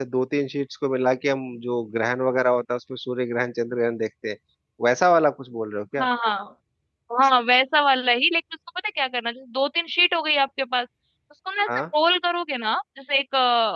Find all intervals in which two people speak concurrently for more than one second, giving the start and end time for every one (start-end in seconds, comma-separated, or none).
none